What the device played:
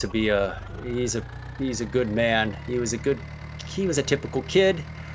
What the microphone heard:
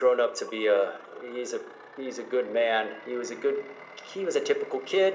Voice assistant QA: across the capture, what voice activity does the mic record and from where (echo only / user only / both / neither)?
echo only